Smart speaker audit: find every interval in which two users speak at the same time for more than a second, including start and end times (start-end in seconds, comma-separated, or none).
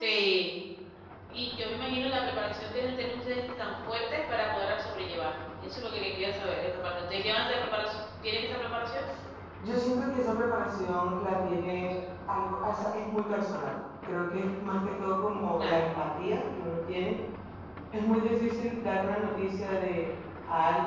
none